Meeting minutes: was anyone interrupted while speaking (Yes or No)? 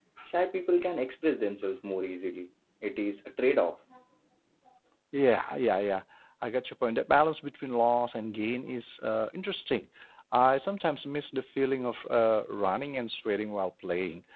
No